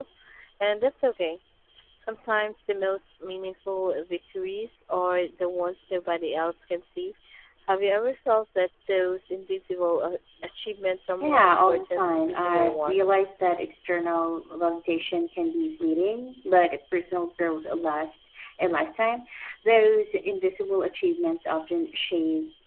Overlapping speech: Yes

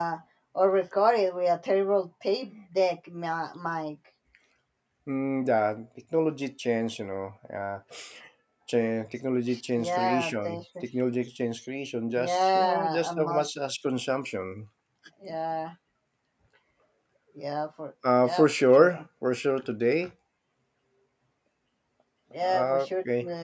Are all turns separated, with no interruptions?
No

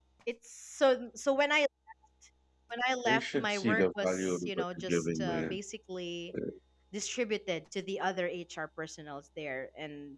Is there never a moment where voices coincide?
No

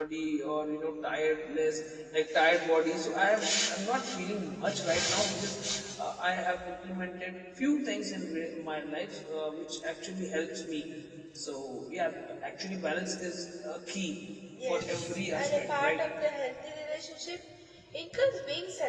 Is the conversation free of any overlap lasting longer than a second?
No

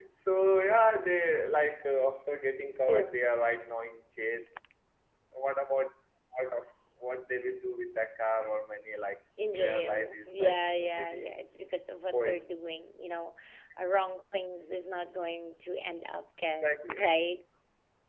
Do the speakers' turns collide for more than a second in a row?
Yes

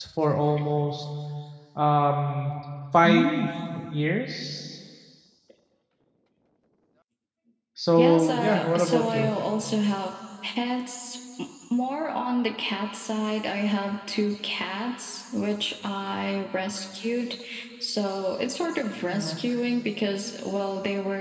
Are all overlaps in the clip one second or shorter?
No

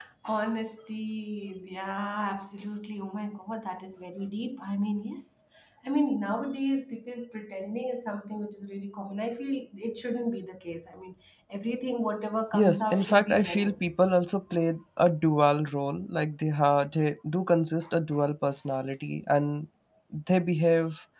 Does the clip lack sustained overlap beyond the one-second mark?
No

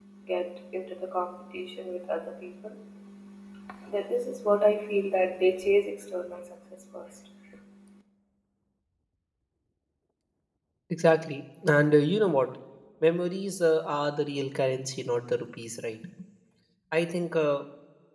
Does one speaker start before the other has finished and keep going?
No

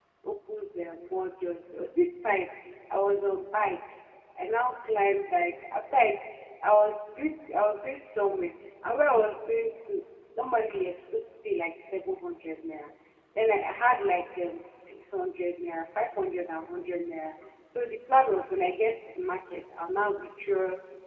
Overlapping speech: No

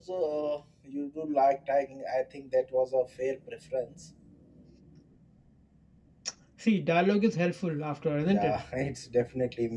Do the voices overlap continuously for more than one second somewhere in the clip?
No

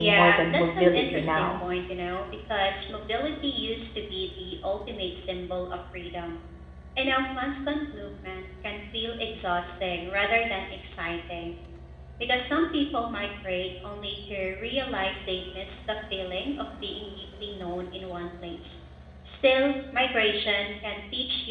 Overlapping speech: Yes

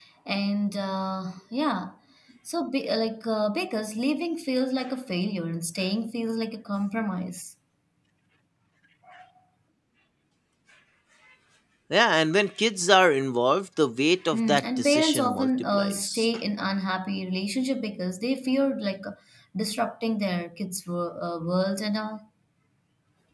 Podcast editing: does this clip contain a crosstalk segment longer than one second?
Yes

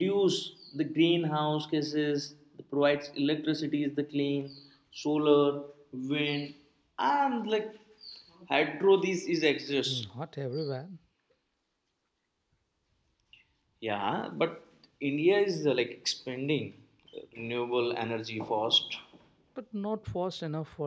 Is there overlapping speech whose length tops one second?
No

